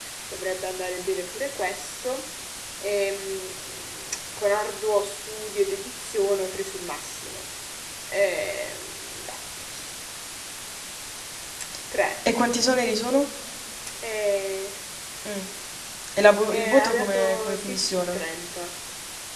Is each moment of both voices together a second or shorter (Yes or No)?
No